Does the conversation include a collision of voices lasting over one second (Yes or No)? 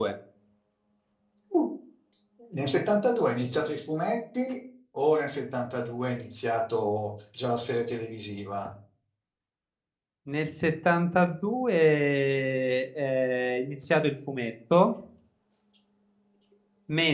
No